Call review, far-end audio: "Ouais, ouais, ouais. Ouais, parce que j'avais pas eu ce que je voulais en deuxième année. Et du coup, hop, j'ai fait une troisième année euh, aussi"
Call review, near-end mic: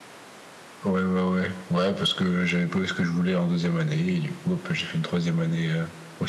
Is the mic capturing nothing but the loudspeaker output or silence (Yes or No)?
Yes